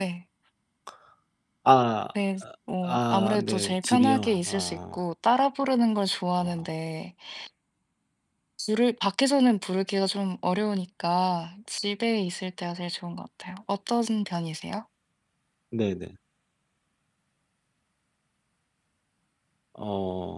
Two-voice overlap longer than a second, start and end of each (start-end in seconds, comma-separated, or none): 2.9-5.0